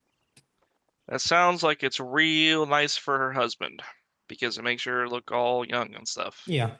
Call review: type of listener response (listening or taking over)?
taking over